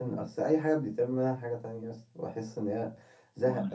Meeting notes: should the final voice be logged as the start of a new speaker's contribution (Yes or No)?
No